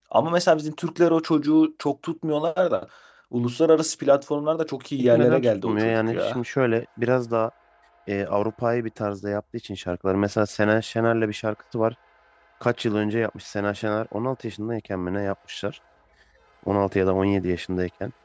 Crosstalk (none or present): present